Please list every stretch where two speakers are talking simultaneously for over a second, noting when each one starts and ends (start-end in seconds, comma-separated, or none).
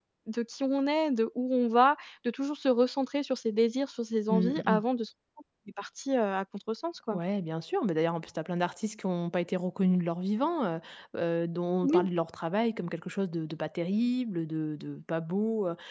none